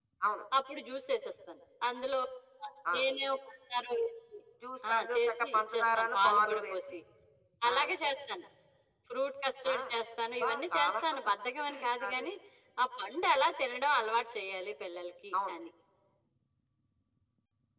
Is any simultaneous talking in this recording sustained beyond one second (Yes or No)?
Yes